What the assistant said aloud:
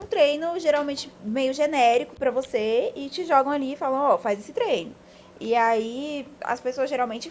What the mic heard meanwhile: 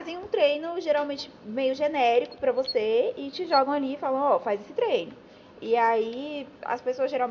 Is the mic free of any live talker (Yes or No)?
Yes